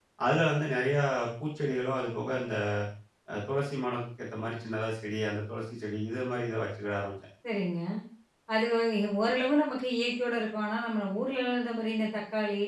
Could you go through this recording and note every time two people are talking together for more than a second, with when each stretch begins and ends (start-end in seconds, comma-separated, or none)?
none